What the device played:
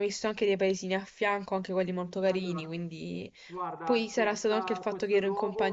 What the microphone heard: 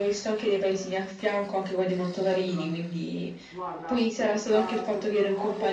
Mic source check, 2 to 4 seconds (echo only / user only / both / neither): echo only